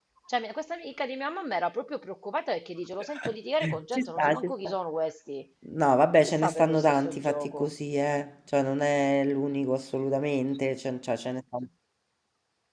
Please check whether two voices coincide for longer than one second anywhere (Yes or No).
Yes